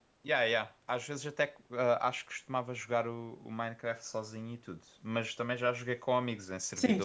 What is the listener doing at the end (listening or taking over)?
taking over